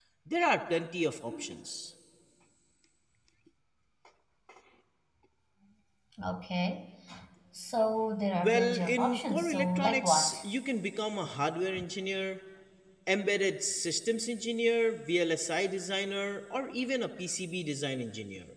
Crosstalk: present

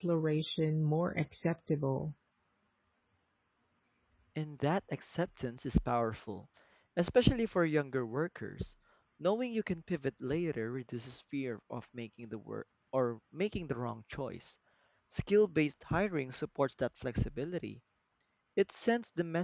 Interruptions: none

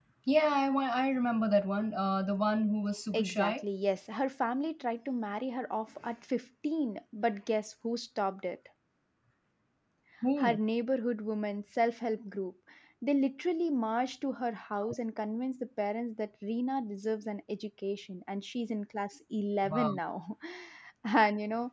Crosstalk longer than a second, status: none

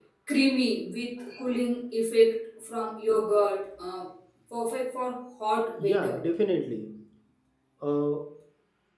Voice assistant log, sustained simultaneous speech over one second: none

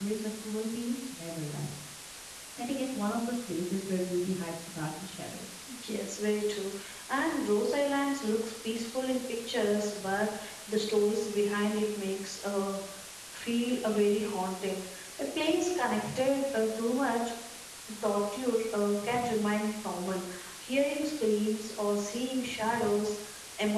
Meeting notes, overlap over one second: none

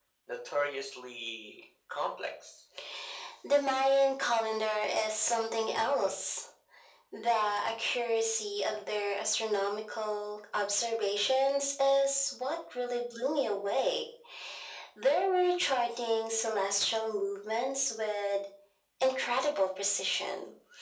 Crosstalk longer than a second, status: none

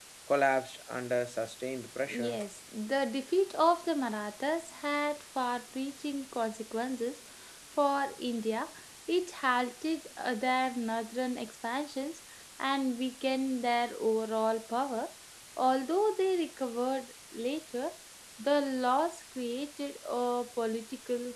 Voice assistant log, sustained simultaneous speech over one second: none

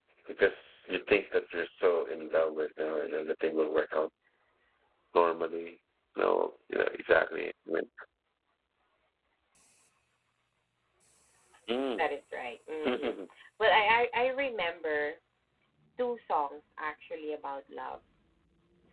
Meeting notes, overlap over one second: none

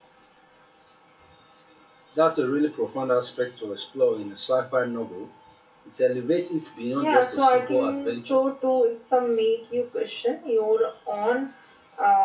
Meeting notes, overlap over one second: present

